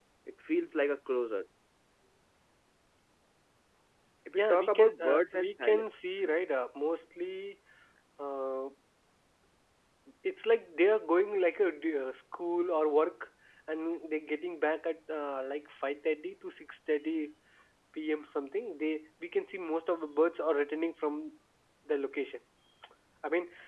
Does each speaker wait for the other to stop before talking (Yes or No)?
No